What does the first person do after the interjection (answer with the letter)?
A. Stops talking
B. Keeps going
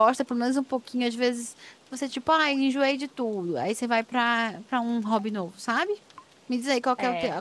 B